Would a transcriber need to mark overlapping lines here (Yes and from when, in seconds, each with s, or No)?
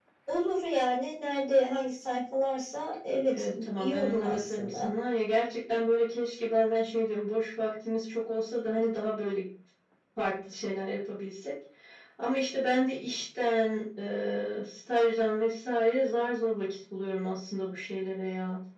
Yes, from 3.3 s